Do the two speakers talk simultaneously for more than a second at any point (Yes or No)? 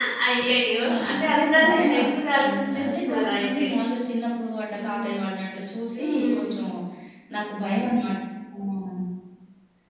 Yes